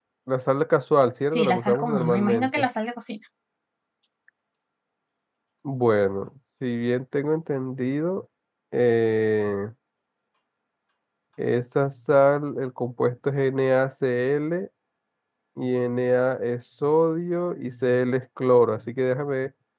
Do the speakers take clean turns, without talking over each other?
No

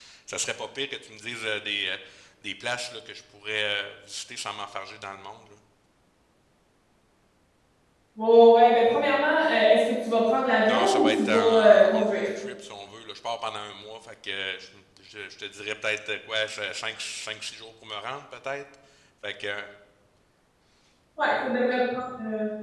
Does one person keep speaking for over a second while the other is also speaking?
Yes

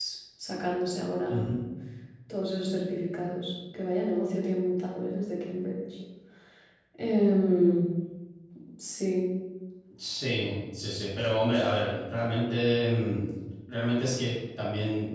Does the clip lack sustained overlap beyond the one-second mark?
Yes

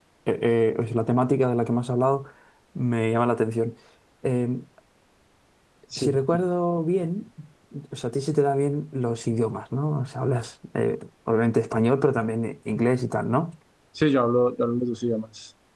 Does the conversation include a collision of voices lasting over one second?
No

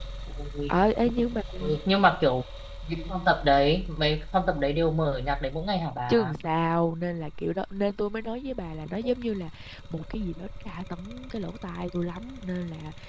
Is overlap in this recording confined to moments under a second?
Yes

